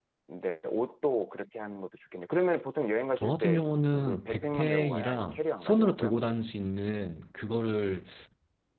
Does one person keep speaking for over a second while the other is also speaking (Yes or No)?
Yes